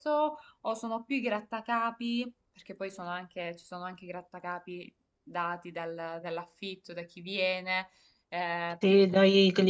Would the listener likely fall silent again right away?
No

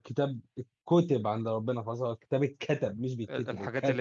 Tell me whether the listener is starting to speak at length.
Yes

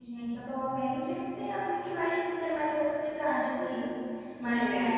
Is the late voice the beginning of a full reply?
No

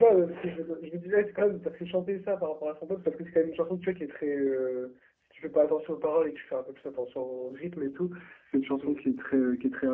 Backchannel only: Yes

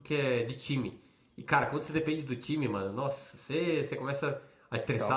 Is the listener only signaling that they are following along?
Yes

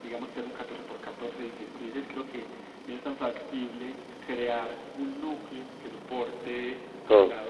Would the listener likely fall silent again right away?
Yes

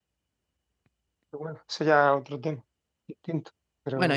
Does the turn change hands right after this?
Yes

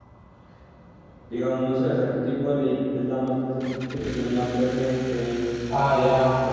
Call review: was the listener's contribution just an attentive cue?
No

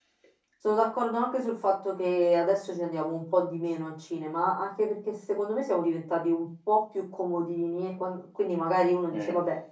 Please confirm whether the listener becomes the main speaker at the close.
No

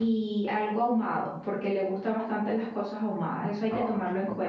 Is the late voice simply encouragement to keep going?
No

